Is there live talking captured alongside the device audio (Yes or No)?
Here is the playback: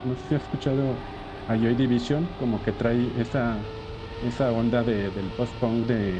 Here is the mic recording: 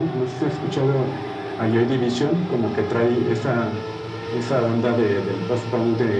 No